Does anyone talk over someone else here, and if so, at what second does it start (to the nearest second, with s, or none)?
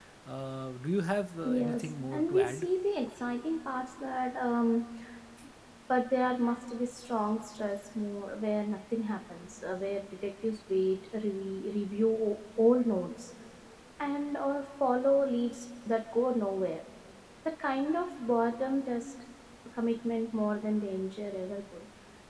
1 s